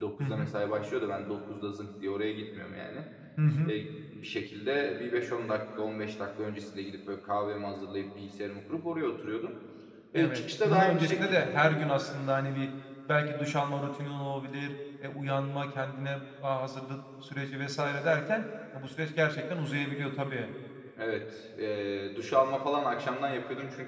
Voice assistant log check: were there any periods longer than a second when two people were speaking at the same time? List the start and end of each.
10.1-11.5

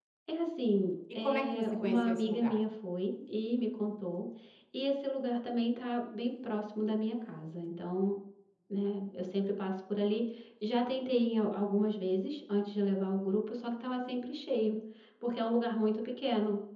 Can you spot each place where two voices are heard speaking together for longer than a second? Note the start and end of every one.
1.2-2.6

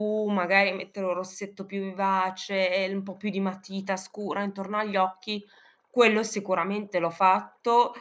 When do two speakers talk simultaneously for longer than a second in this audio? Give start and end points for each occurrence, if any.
none

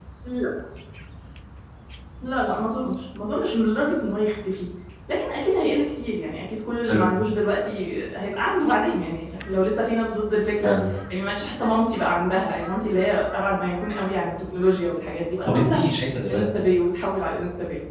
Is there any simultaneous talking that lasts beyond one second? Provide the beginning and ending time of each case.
none

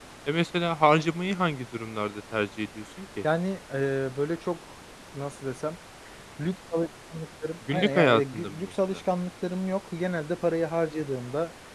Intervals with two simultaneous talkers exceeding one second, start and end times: 7.7-9.0

